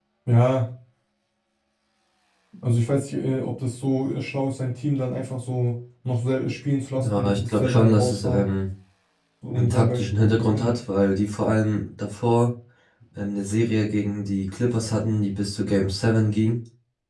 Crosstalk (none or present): present